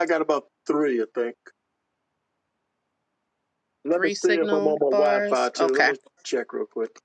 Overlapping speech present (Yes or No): Yes